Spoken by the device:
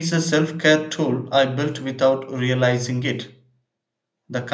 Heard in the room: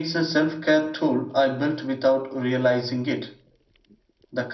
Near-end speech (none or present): none